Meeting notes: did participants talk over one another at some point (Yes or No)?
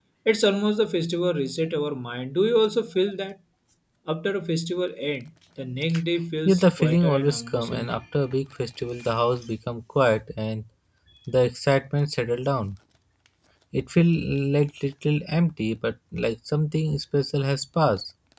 Yes